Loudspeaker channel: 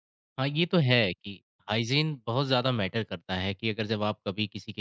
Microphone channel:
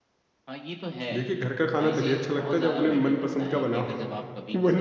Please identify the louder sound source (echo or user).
user